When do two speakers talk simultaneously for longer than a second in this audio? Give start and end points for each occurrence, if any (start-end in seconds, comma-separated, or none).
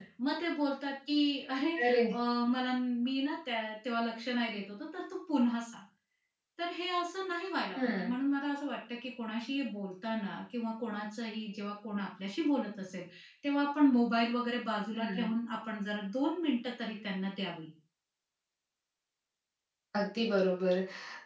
none